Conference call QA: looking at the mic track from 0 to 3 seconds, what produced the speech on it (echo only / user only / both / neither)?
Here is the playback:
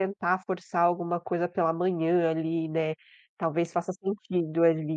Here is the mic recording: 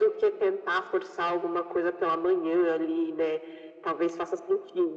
echo only